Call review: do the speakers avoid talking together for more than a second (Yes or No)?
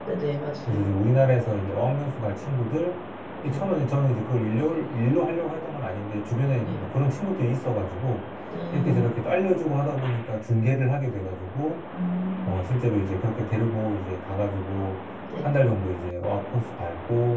Yes